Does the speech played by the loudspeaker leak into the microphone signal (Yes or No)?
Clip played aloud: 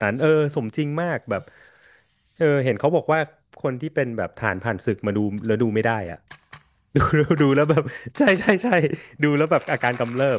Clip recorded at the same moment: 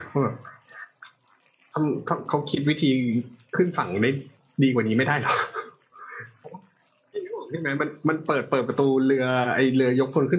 No